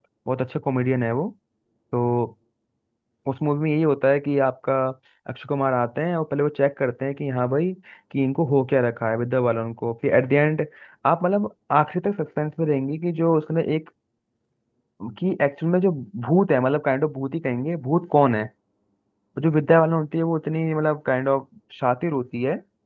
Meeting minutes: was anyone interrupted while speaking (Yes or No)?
No